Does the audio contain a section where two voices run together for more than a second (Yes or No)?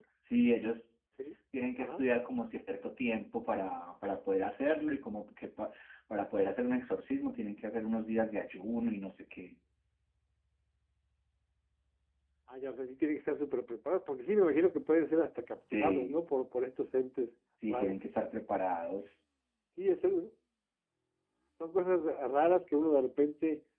No